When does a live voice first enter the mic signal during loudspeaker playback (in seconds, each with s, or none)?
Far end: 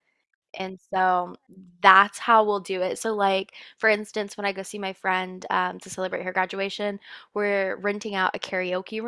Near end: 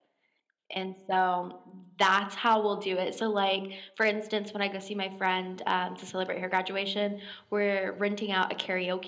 none